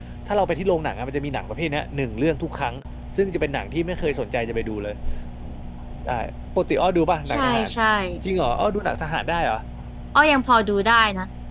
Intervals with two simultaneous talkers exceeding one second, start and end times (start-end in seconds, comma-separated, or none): none